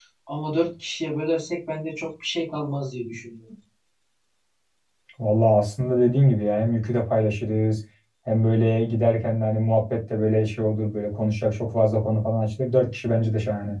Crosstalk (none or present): none